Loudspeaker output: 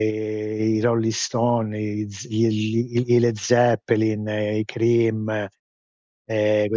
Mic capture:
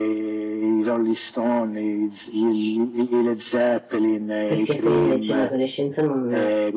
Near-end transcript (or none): perché poi invece in adolescenza non